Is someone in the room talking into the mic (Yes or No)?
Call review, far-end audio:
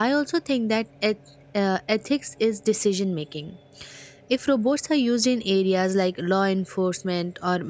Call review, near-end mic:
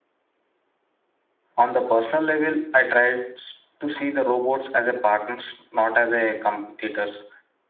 Yes